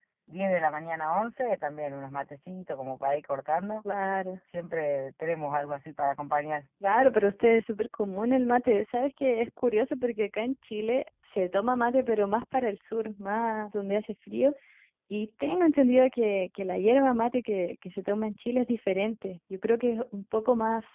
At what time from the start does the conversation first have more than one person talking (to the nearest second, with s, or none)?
none